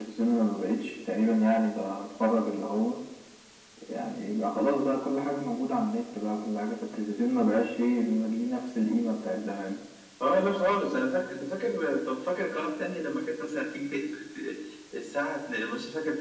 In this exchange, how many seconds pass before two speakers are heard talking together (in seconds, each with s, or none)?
none